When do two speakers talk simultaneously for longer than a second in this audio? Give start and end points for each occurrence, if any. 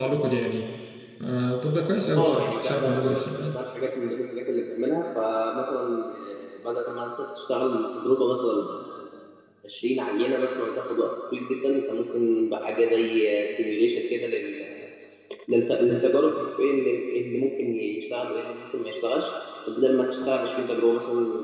2.2-3.5

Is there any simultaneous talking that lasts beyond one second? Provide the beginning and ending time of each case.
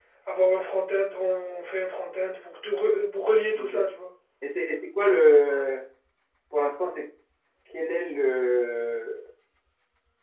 none

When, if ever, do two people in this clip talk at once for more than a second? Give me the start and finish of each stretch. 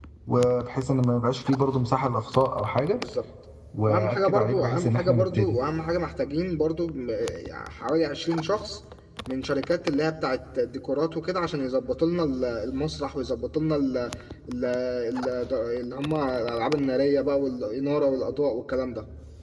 3.9-5.5

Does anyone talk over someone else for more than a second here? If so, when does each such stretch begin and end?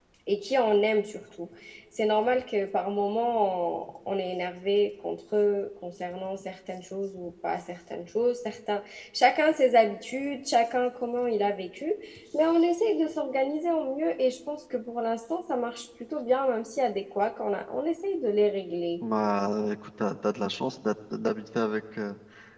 none

